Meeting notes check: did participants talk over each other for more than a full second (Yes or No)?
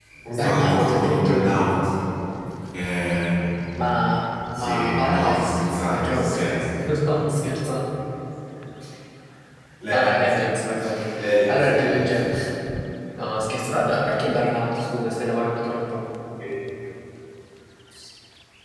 Yes